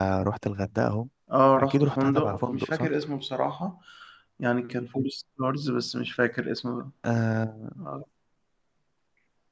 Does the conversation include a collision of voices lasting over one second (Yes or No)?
Yes